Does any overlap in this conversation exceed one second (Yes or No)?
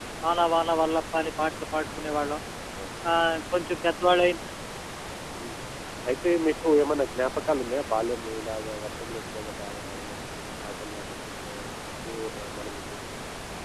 No